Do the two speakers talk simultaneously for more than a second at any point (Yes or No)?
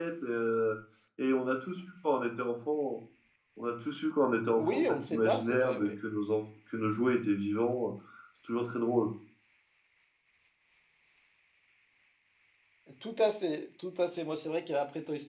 Yes